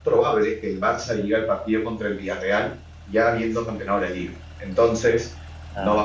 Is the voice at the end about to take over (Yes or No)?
No